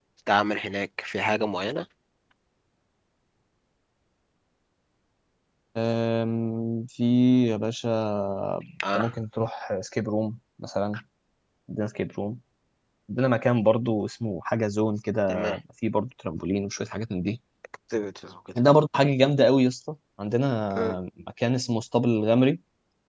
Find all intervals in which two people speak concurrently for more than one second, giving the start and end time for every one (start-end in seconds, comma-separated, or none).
none